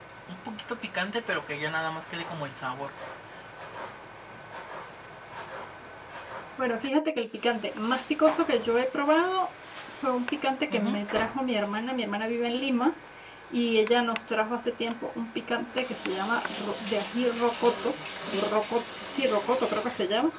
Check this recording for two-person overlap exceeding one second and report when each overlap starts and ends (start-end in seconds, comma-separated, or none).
none